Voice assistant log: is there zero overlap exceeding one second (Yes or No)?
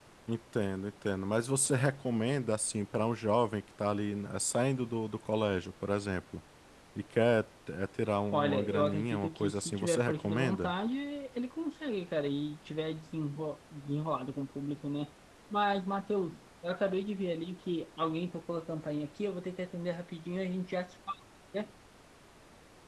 No